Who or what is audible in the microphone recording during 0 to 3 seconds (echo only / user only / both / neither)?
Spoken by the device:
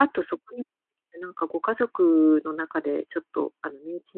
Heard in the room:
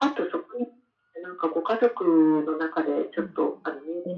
echo only